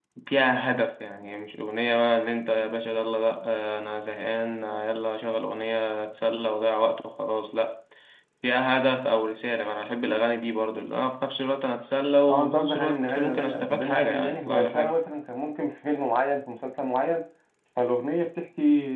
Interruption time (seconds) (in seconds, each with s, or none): 12.3 s